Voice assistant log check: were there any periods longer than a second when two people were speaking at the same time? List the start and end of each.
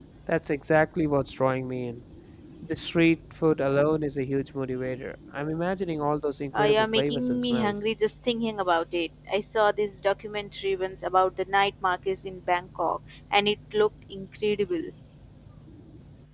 6.5-7.8

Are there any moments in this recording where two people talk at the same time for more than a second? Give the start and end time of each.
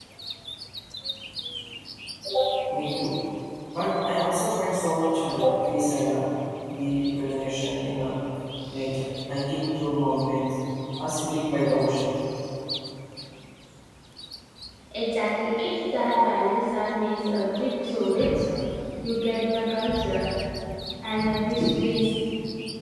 none

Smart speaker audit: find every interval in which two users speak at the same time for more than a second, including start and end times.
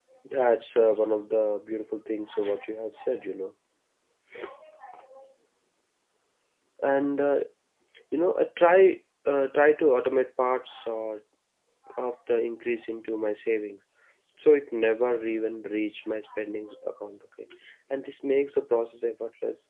none

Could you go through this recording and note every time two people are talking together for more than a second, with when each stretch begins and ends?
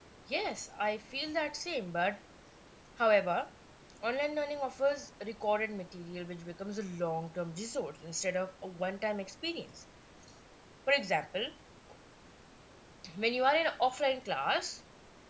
none

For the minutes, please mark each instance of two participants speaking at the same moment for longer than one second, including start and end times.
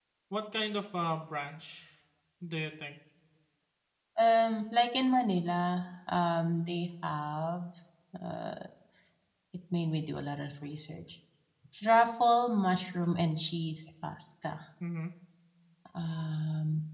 none

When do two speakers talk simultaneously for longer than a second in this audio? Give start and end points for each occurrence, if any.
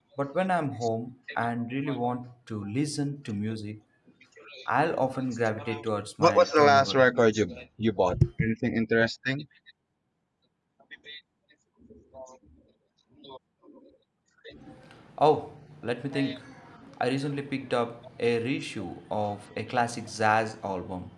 6.2-7.4

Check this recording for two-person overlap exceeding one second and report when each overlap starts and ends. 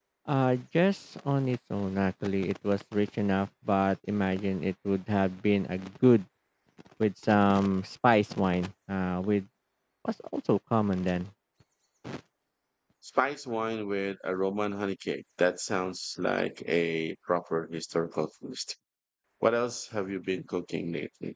none

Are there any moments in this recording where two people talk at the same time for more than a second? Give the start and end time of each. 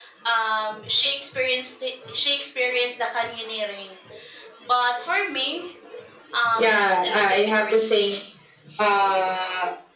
6.6-8.1

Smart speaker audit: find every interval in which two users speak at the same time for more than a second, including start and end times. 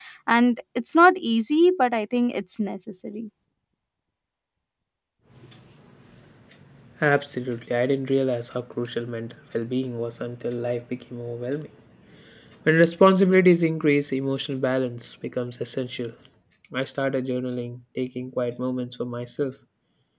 none

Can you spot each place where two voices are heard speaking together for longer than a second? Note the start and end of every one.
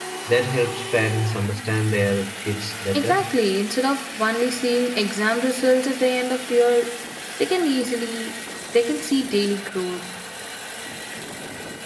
none

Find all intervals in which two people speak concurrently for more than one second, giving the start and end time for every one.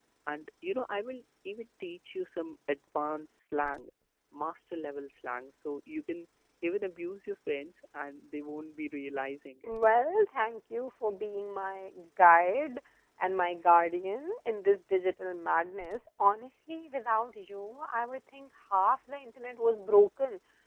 none

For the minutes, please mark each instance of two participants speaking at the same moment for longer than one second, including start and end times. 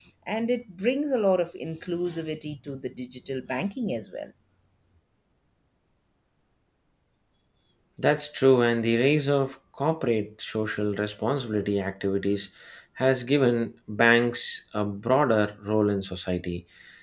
none

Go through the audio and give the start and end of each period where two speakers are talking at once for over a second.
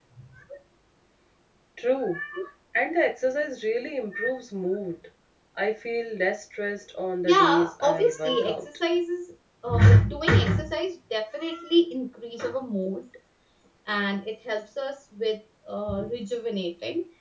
7.2-8.6

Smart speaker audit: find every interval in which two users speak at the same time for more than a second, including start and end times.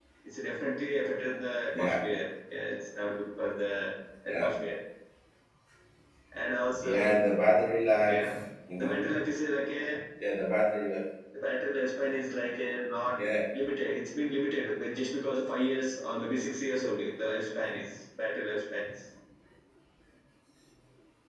none

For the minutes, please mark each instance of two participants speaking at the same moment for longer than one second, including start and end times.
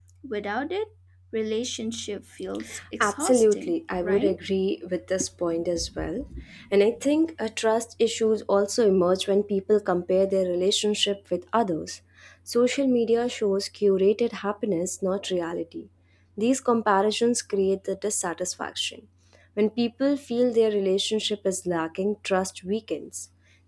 3.0-4.4

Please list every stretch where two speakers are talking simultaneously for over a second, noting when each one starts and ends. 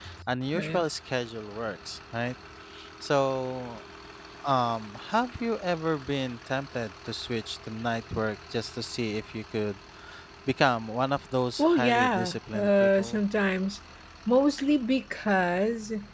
11.6-13.2

